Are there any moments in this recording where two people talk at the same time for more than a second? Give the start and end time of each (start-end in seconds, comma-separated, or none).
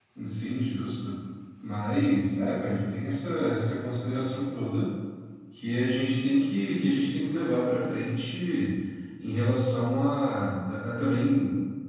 none